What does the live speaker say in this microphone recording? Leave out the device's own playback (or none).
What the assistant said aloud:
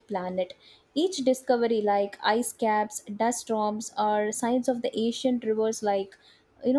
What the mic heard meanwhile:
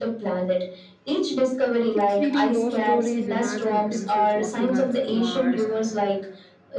Kids reading those stories imagine themselves walking on Mars,